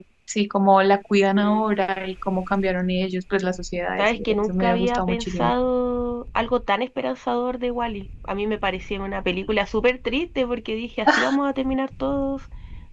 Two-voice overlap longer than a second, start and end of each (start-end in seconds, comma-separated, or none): 4.0-5.5